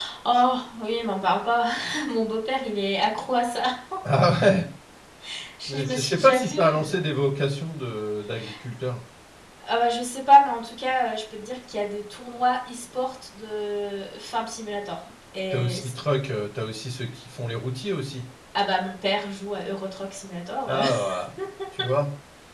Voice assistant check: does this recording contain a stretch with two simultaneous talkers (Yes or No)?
Yes